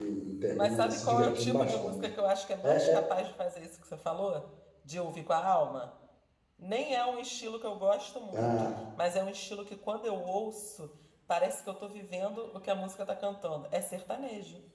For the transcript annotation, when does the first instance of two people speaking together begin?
0.6 s

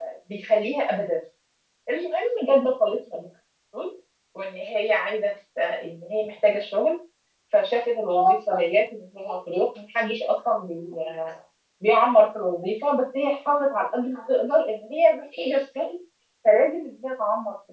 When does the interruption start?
none

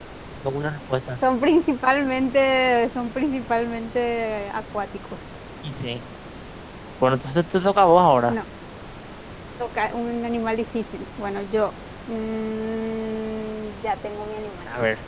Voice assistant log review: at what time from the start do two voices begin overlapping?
none

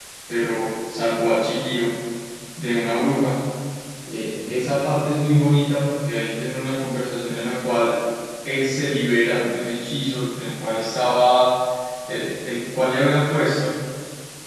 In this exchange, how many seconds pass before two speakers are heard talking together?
none

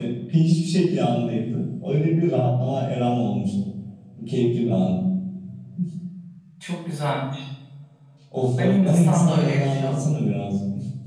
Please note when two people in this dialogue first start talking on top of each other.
8.6 s

